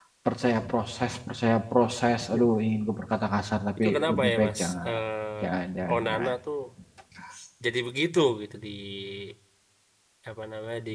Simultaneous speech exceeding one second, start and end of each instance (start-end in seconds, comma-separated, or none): 3.8-5.0